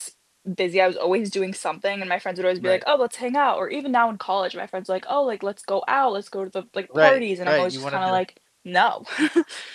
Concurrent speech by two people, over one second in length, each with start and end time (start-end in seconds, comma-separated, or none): 7.0-8.2